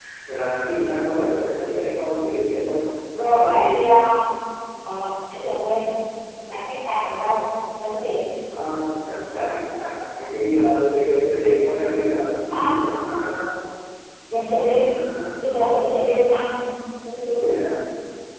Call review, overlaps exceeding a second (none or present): none